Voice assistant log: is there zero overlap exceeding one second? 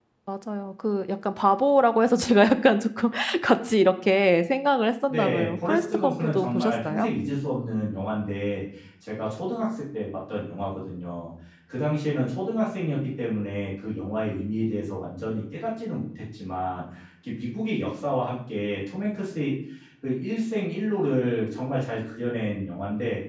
No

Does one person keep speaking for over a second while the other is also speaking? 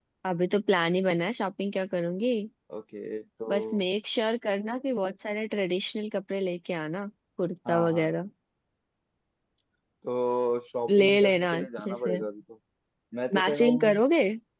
Yes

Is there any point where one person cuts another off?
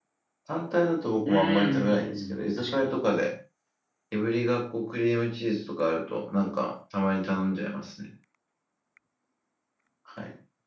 Yes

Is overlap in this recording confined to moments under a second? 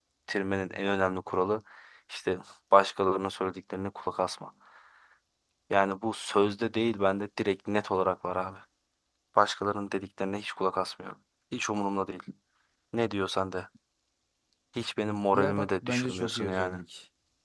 No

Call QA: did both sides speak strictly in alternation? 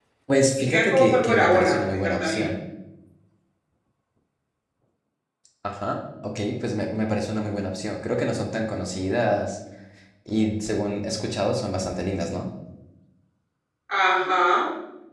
No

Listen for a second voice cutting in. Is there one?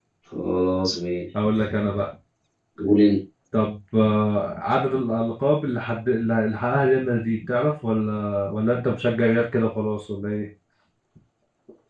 No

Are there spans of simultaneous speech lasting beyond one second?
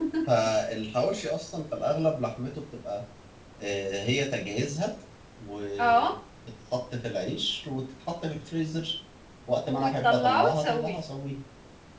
Yes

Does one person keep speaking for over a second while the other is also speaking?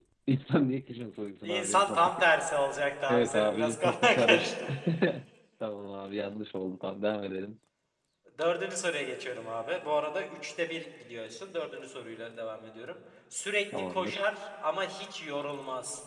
Yes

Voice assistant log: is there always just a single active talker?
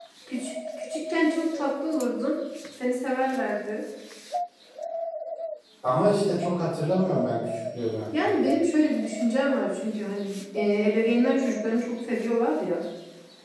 Yes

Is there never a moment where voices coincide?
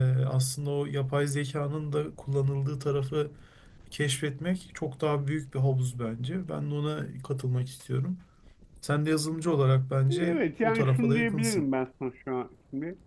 No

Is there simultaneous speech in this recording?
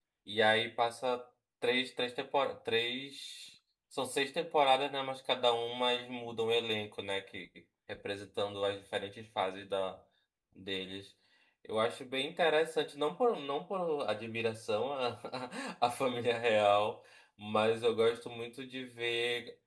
No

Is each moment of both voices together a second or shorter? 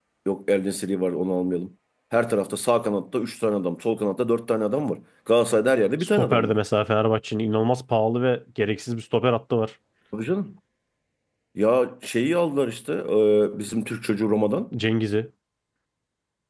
Yes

